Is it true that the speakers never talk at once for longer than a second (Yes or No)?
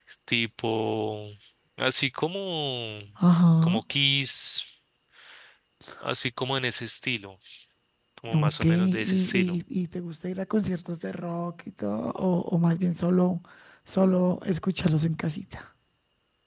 No